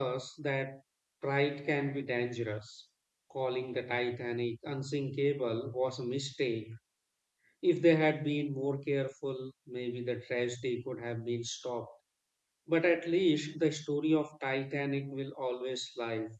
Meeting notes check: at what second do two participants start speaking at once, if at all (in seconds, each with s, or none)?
none